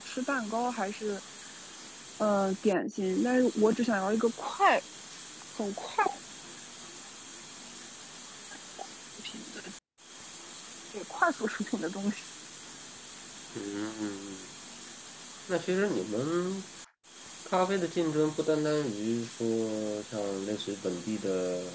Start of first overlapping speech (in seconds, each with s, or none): none